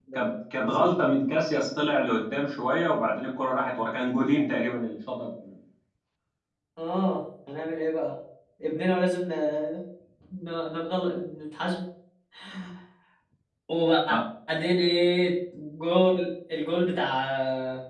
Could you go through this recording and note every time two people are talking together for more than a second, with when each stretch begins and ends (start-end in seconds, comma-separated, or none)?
none